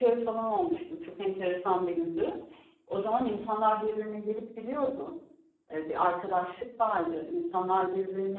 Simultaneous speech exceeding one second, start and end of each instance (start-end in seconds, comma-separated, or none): none